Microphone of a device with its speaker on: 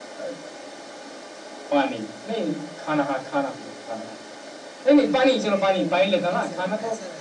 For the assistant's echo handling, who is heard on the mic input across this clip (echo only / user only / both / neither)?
both